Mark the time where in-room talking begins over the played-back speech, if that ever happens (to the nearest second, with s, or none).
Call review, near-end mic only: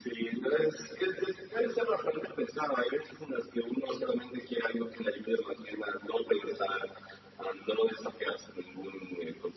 none